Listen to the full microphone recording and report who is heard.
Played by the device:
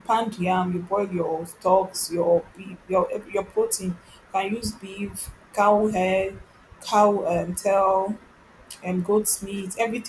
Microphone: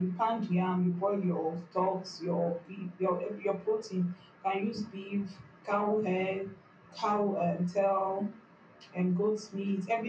echo only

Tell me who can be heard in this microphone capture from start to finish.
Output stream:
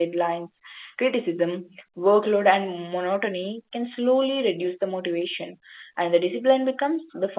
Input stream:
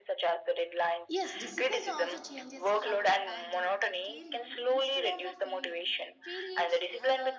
both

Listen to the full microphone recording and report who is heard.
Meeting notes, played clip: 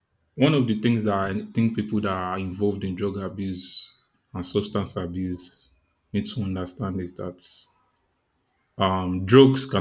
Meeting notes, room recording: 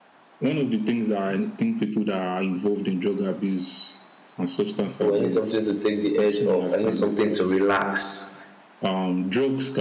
both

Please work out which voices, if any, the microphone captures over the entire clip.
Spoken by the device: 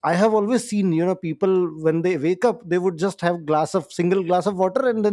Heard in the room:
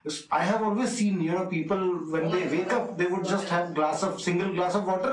both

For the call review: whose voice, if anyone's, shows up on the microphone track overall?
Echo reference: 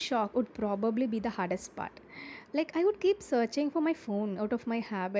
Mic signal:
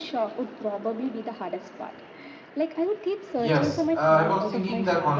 both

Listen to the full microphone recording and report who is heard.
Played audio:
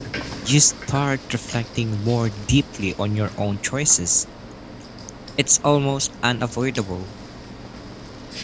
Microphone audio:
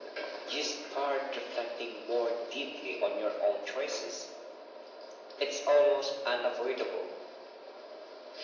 echo only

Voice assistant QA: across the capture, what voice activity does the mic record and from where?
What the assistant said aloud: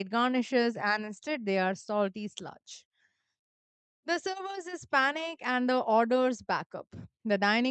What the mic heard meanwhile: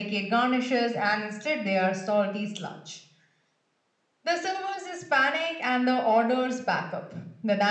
echo only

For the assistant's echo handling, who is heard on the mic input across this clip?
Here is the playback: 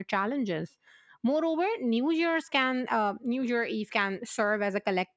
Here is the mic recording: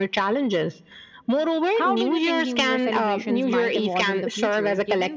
both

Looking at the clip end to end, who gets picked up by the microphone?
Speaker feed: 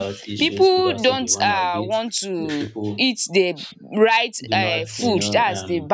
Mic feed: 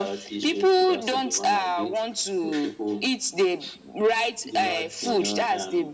echo only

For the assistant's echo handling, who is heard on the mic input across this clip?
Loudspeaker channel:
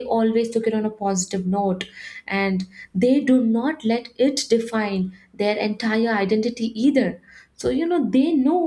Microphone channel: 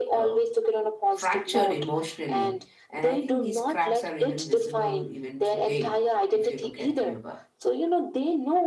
both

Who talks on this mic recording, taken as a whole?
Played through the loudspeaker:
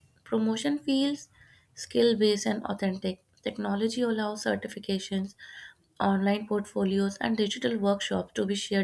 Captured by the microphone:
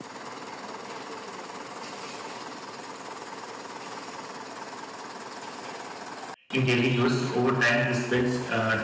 user only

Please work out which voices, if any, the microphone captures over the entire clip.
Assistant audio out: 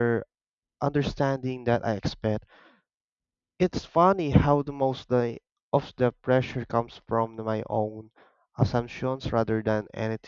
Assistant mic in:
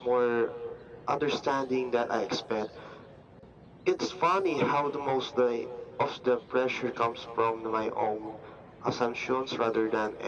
echo only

